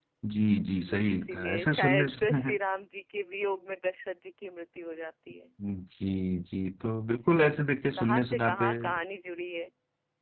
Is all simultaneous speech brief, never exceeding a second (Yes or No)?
No